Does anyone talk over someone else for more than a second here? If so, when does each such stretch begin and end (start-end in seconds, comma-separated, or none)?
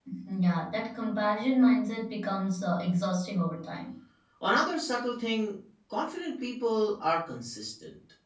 none